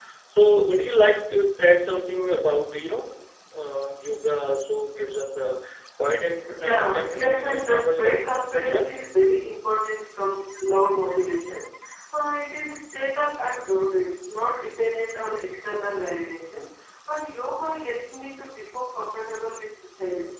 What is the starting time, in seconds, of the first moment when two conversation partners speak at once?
7 s

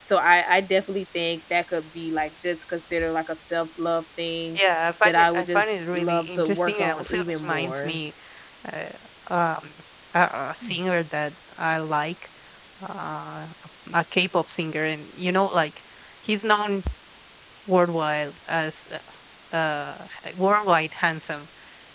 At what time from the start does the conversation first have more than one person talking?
5 s

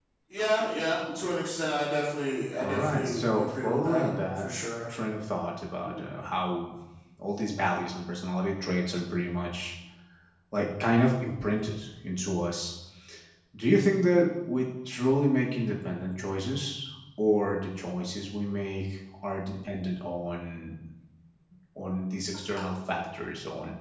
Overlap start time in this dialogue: 3 s

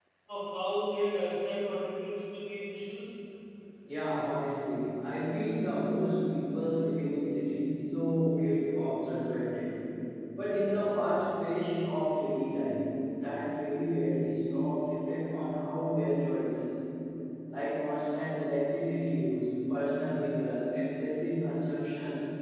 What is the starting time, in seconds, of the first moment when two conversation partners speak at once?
none

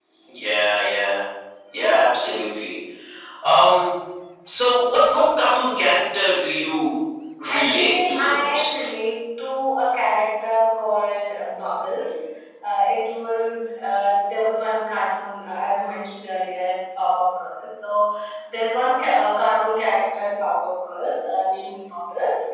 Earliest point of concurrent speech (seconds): 7 s

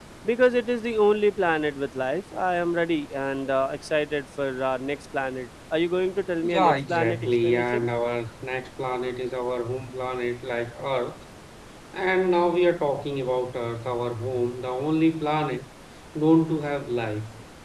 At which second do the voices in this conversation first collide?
6 s

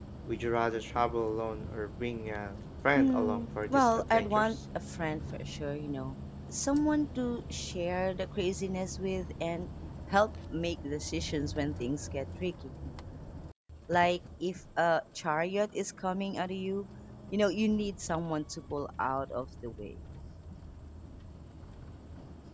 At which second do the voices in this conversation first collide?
3 s

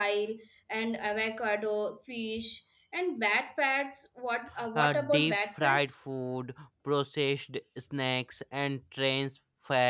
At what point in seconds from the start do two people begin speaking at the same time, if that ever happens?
5 s

